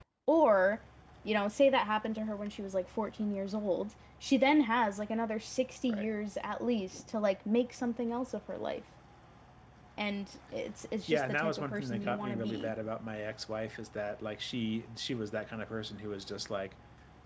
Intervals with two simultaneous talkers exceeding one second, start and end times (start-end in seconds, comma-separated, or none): 11.1-12.7